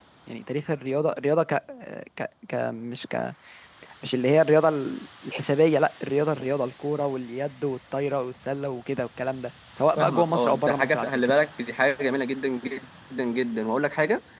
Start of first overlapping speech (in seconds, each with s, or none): 10.0 s